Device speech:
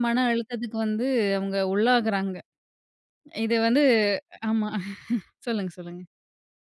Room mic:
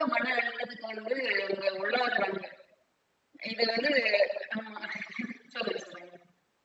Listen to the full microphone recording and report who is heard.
echo only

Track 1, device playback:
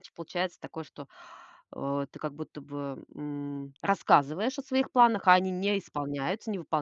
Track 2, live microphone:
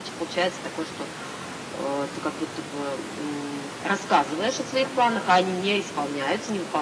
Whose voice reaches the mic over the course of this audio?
echo only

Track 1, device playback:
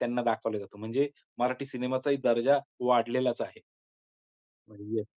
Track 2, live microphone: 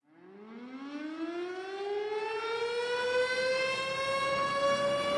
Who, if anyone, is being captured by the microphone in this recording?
neither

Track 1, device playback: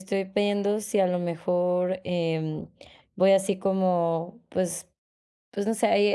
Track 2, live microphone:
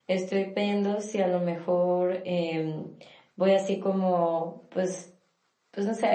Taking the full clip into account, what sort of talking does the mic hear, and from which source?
echo only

